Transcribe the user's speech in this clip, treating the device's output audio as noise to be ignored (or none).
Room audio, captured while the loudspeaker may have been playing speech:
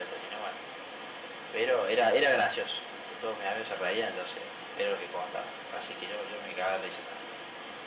none